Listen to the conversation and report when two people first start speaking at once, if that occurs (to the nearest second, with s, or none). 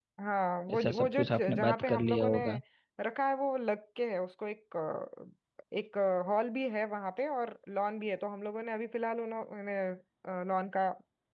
1 s